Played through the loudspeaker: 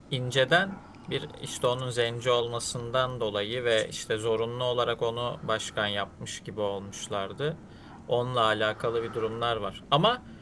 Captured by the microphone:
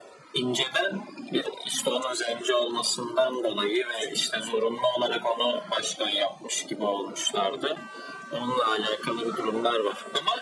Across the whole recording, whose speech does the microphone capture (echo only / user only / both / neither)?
echo only